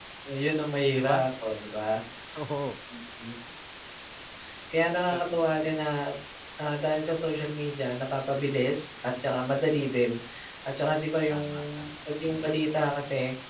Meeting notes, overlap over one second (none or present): none